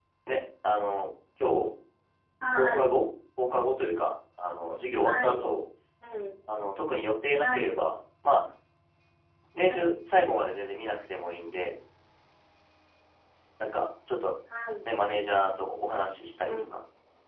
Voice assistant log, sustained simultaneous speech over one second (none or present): none